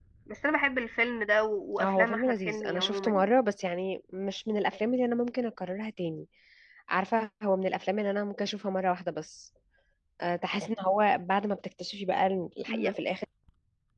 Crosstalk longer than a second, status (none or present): present